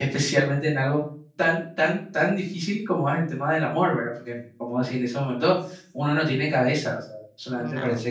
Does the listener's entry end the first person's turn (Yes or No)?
No